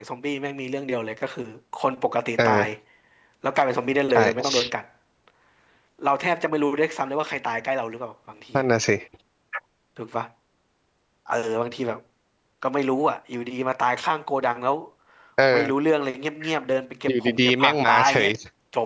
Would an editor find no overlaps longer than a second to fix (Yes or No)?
No